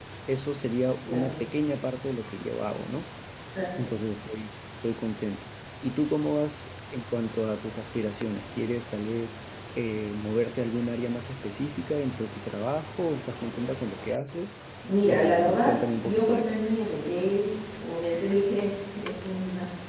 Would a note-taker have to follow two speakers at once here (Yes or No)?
Yes